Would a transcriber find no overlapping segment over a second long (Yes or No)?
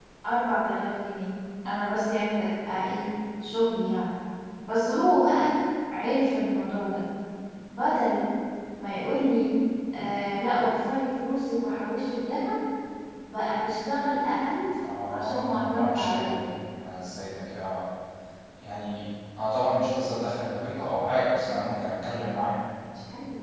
No